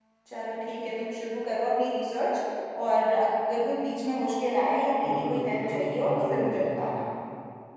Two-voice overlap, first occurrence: 5.0 s

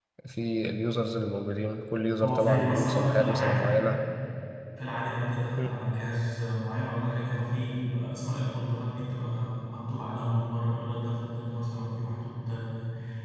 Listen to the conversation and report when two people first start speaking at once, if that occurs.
2.2 s

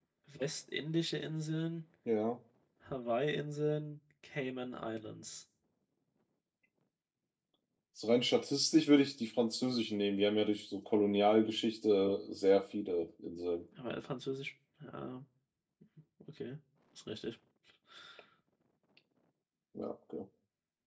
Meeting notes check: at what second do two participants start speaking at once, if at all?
none

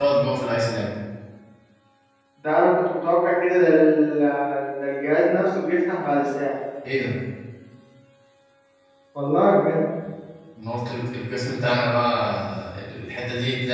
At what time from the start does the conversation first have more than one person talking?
none

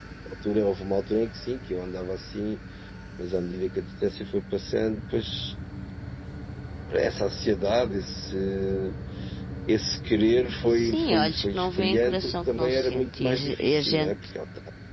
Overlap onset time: 10.7 s

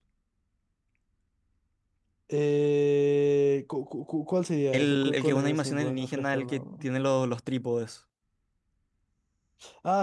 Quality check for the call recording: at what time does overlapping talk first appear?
4.7 s

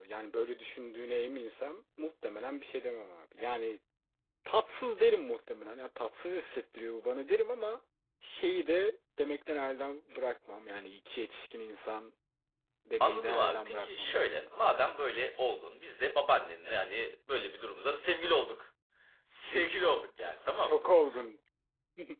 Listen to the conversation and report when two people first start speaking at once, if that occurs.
13.0 s

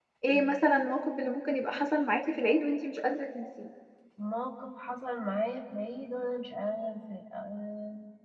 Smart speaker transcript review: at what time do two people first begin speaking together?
none

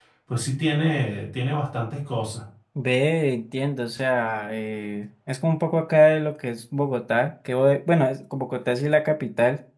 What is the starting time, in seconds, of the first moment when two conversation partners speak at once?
none

